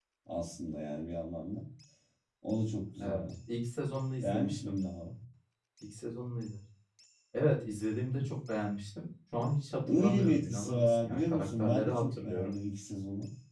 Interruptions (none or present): present